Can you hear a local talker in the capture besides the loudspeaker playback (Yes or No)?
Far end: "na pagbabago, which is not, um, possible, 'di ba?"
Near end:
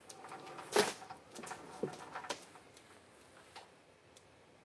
No